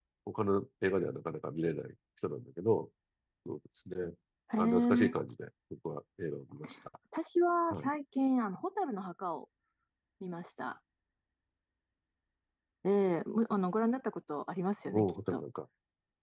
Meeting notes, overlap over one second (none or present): none